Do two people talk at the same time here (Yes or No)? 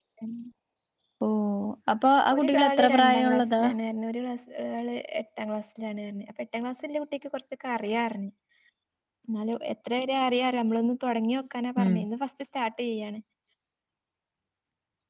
Yes